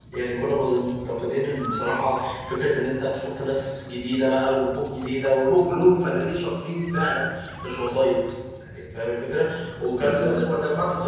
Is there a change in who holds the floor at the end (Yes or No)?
No